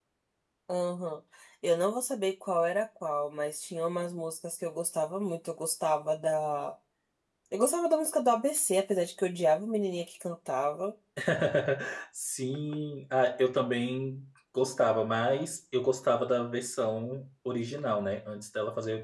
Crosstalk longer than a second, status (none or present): none